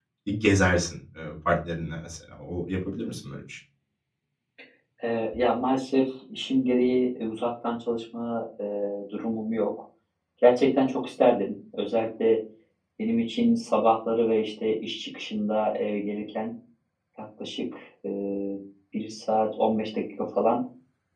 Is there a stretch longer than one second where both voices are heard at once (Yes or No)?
No